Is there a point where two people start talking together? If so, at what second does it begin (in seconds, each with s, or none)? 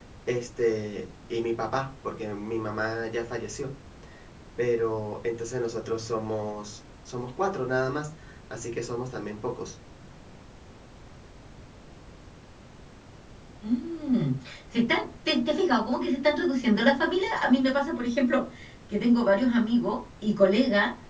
none